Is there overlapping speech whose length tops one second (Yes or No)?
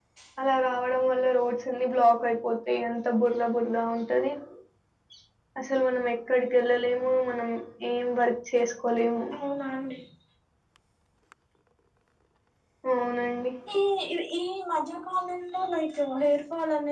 No